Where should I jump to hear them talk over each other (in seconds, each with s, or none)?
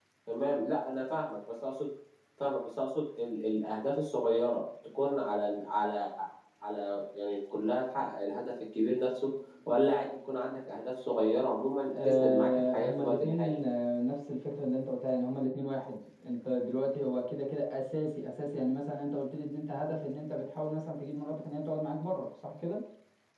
11.9 s